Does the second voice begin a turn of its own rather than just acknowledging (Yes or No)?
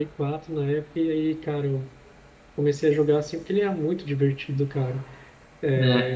No